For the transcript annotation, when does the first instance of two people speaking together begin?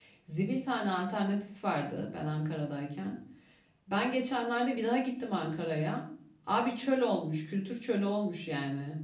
none

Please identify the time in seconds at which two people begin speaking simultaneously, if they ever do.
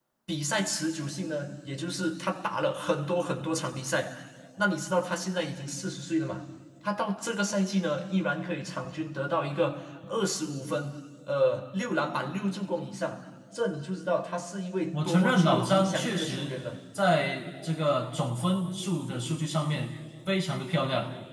14.9 s

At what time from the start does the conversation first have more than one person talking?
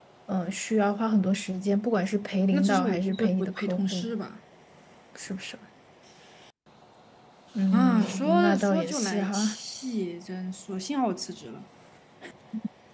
2.5 s

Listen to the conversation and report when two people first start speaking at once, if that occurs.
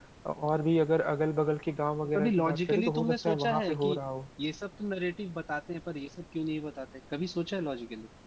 2.0 s

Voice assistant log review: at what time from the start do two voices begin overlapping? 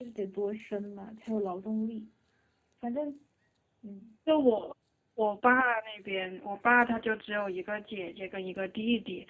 none

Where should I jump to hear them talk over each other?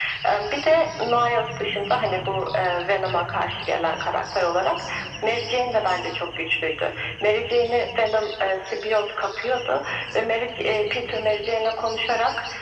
none

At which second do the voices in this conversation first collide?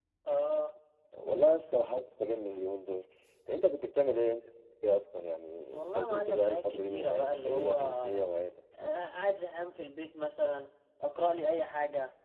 5.7 s

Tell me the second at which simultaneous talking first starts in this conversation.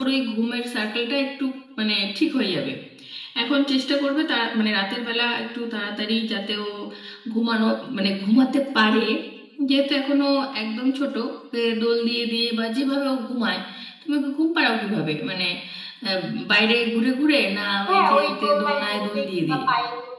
17.9 s

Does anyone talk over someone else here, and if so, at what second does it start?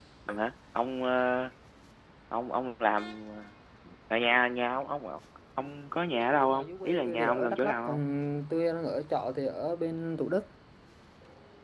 6.3 s

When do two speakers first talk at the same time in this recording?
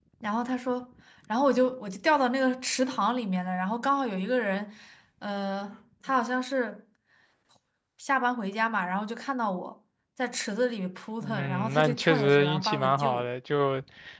11.2 s

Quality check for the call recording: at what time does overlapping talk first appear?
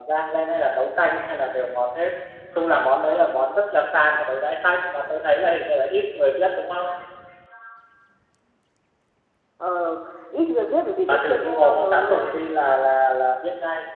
11.1 s

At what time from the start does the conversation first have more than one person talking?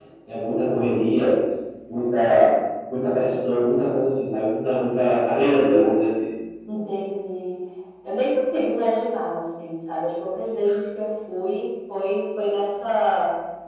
none

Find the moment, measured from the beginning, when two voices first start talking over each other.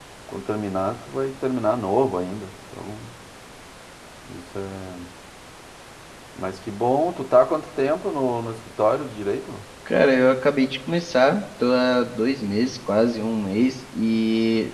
none

